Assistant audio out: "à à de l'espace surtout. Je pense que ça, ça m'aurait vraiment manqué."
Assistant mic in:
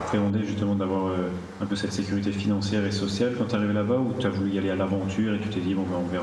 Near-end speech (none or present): present